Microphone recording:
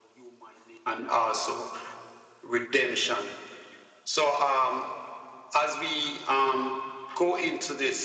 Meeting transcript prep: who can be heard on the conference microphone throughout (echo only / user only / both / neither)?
echo only